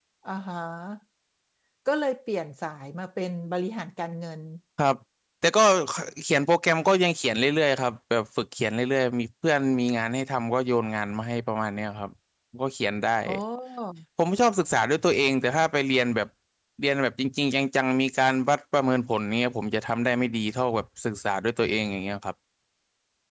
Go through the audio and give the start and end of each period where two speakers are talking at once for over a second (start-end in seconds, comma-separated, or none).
none